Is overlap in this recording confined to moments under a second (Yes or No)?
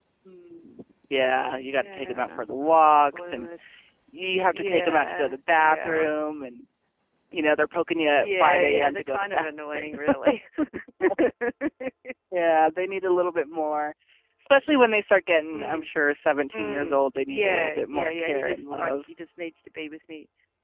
No